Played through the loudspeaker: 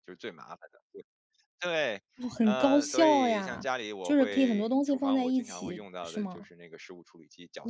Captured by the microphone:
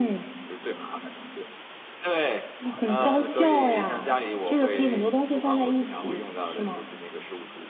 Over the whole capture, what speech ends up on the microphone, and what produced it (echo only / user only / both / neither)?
echo only